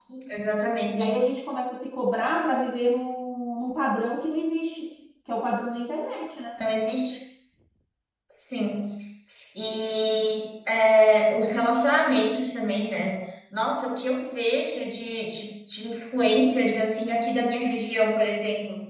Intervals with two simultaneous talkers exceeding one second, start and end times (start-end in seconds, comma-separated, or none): none